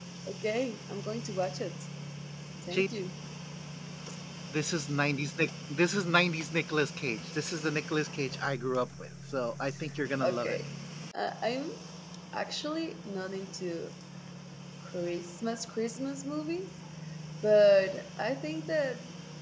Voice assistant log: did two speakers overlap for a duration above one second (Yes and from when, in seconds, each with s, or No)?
No